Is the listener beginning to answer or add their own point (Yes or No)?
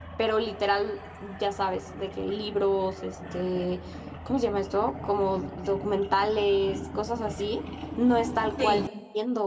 No